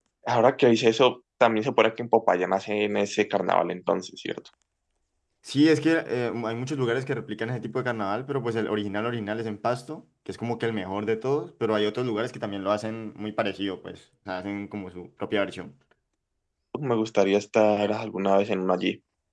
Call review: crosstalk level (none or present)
none